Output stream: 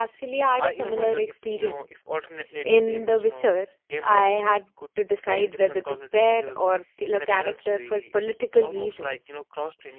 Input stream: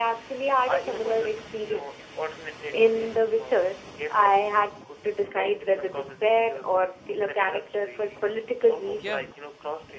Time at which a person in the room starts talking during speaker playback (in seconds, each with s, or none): 9.0 s